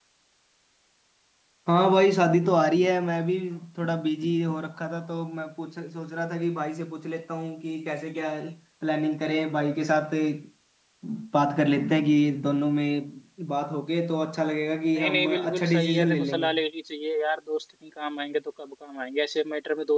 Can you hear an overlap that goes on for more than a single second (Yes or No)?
Yes